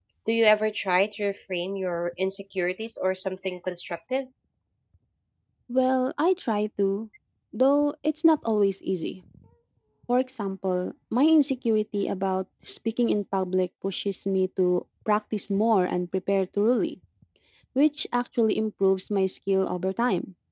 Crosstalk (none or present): none